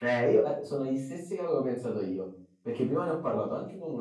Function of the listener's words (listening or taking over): listening